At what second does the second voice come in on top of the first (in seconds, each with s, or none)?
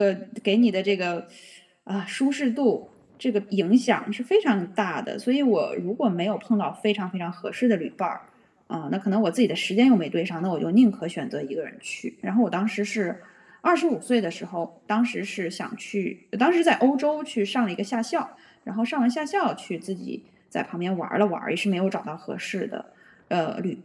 none